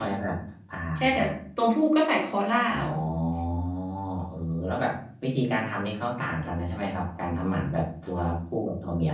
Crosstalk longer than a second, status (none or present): none